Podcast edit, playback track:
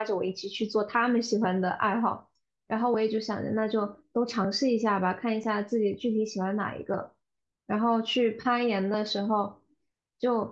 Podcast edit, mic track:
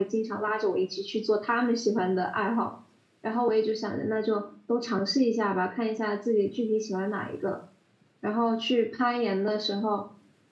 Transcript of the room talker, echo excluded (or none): none